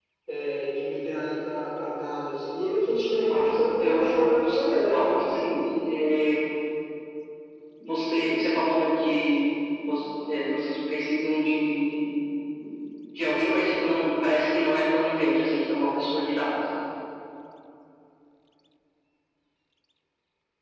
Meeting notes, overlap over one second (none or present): present